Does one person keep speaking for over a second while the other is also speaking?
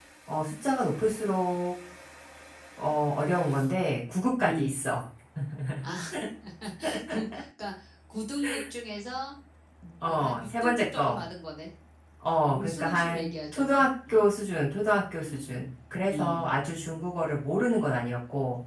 Yes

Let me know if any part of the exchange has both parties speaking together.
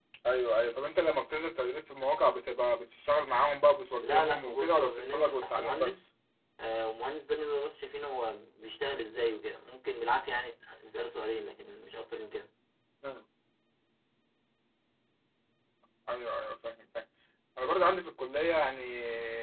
Yes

